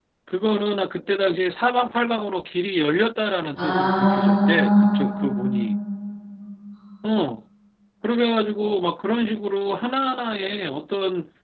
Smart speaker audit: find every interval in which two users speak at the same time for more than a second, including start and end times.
3.6-5.0

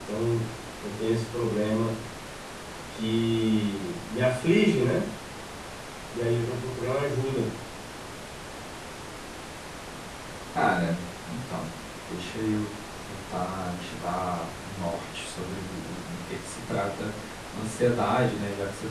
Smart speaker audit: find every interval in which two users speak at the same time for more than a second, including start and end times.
none

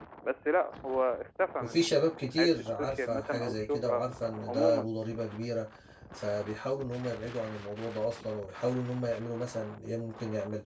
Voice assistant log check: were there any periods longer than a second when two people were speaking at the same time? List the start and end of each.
1.6-4.0

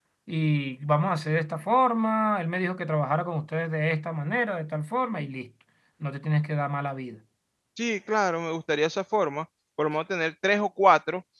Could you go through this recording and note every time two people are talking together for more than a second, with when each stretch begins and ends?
none

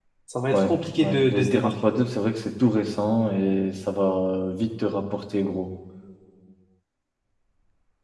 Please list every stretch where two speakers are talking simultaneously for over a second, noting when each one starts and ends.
0.5-1.7

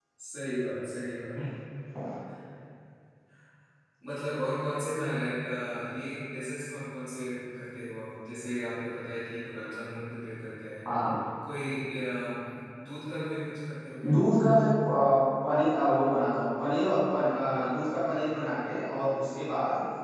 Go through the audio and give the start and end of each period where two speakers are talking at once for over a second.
none

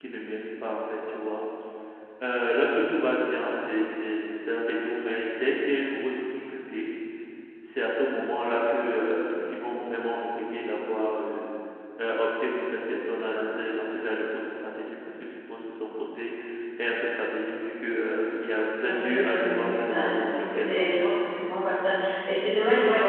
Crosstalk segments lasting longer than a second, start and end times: 18.9-21.1

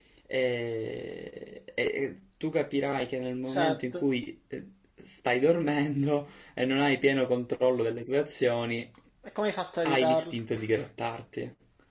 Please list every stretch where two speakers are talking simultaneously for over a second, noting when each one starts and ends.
none

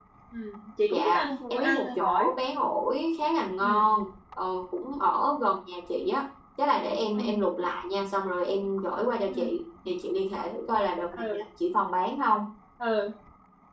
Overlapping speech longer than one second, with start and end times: 0.9-2.3

